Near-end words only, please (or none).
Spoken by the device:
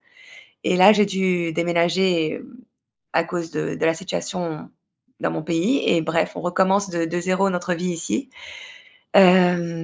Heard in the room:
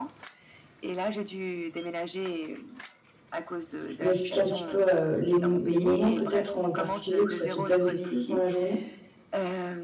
Si tu peux m'expliquer un petit peu, heu, les m les moments peut-être en particulier où ça te pèse le plus dans la journée?